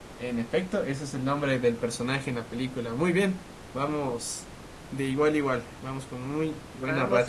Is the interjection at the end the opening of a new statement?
Yes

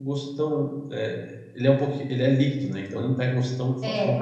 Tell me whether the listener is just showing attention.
Yes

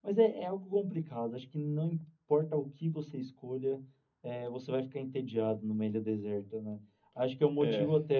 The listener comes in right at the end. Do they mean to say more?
No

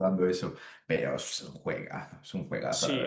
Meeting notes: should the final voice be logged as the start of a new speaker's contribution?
Yes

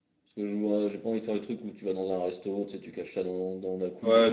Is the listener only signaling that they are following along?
No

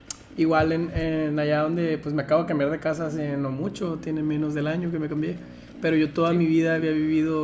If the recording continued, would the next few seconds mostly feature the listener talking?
No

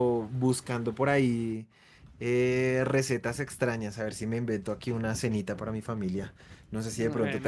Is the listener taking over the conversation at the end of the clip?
No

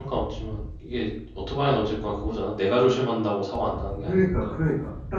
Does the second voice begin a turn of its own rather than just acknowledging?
Yes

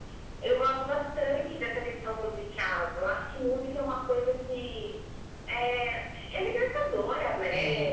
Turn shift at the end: No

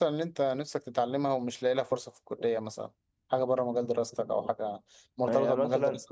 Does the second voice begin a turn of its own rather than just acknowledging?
Yes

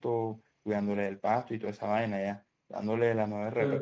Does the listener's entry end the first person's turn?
No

